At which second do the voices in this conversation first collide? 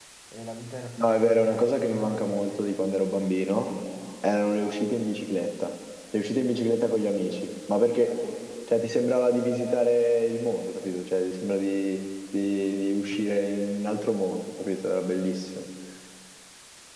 1.0 s

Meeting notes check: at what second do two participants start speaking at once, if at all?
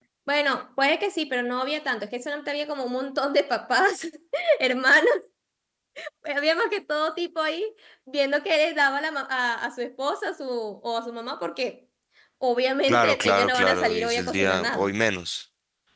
12.9 s

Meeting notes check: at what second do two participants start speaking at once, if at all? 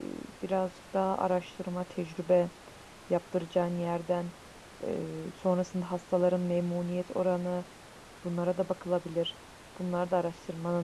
none

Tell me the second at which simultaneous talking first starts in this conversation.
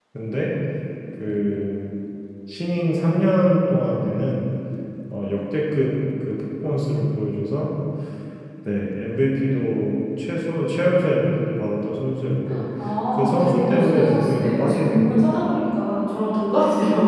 13.1 s

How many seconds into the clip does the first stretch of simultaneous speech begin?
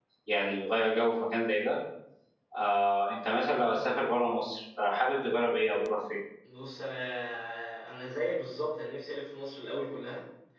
none

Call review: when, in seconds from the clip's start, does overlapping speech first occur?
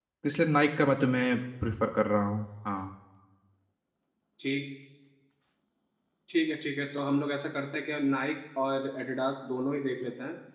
none

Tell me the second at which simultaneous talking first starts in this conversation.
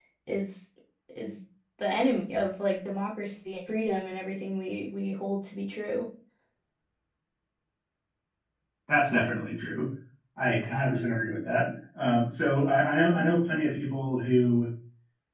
none

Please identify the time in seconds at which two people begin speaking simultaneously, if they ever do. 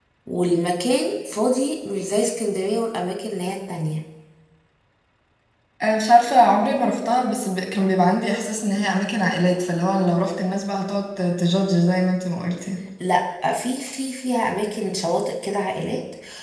none

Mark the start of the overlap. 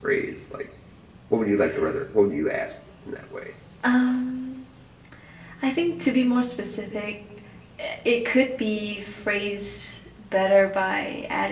none

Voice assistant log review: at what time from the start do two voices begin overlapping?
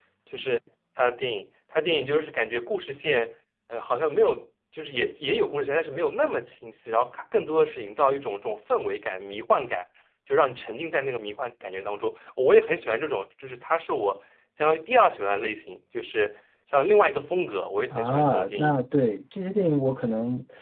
17.9 s

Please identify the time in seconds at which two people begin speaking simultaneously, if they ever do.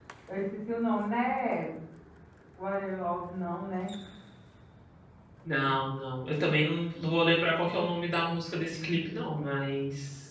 none

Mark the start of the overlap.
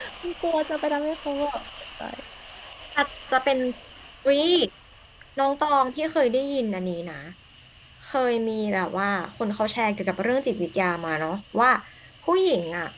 none

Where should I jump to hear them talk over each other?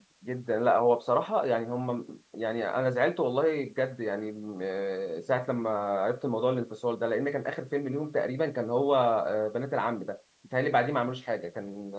none

